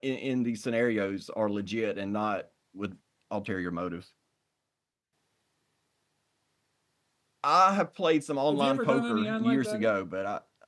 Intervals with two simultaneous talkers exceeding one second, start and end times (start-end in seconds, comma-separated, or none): 8.5-9.9